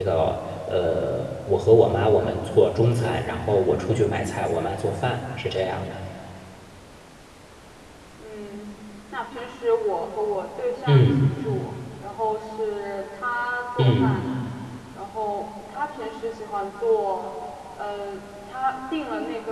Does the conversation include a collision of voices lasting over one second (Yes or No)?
No